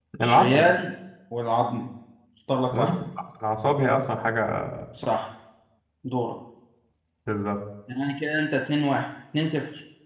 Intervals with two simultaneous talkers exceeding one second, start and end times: none

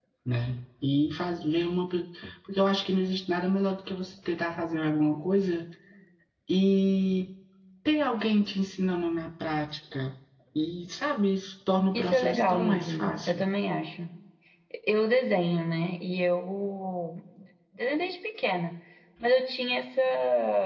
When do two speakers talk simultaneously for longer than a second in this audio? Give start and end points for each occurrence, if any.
11.9-13.4

